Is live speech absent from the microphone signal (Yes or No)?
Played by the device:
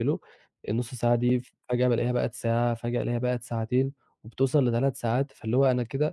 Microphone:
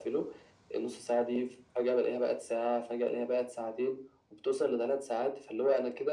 Yes